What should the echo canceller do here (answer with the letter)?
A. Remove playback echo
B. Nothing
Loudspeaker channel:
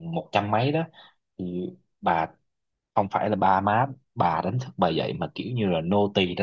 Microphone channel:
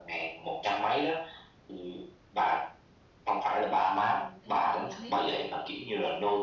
A